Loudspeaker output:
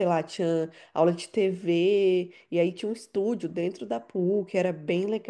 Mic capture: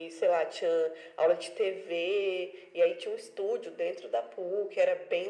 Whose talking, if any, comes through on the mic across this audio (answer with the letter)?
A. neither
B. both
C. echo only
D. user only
C